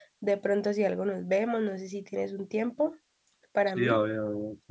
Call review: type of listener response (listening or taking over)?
taking over